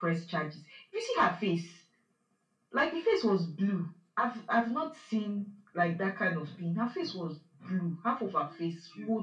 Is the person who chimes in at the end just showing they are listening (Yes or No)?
Yes